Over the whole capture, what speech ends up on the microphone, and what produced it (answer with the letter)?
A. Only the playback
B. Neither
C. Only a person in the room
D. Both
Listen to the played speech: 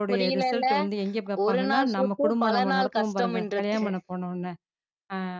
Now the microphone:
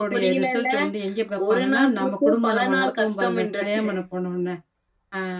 A